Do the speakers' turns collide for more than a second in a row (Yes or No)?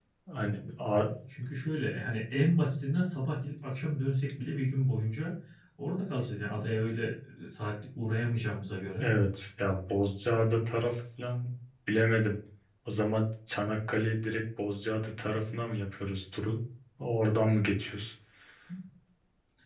No